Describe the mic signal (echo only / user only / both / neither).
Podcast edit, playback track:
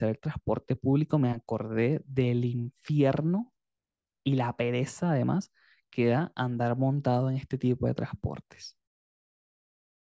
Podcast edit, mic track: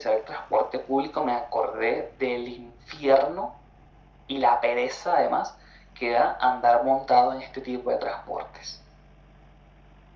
echo only